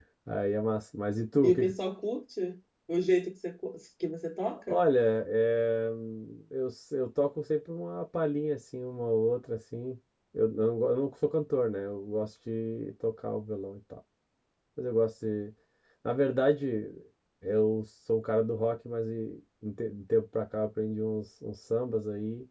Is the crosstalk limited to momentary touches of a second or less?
Yes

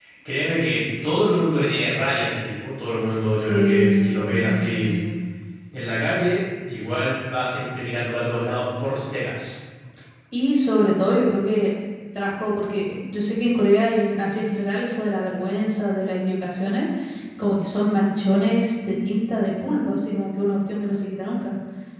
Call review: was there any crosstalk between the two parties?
Yes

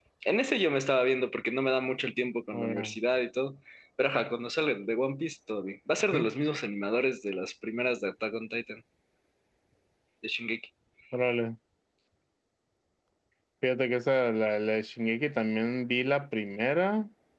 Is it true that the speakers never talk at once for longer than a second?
Yes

